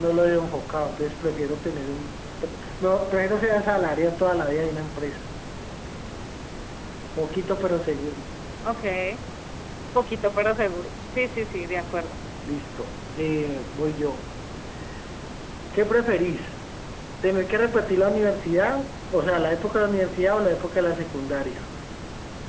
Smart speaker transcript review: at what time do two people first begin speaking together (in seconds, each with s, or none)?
none